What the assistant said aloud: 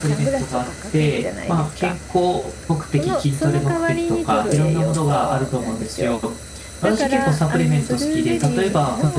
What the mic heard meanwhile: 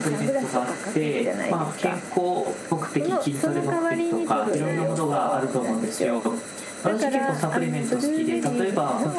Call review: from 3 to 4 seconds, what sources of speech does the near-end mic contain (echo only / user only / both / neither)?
echo only